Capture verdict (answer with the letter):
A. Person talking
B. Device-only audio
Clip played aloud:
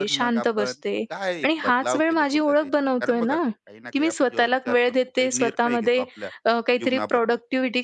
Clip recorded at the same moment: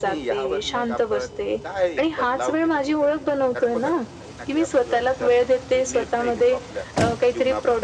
B